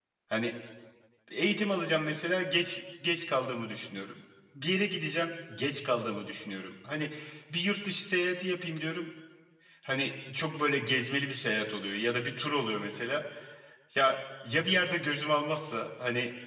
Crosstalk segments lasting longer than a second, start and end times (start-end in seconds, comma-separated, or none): none